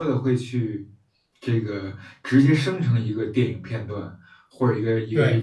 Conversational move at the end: listening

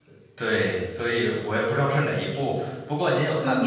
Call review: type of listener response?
taking over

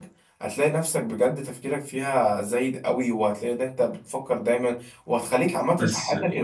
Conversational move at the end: listening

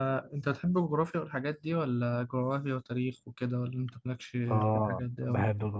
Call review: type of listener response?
taking over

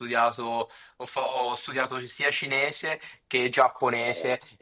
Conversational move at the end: listening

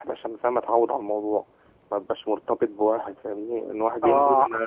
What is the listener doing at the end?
taking over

